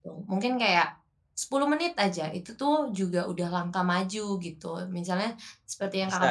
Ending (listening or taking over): listening